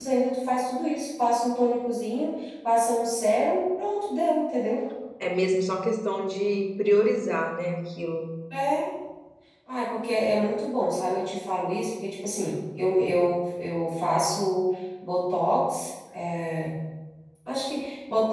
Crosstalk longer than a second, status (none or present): none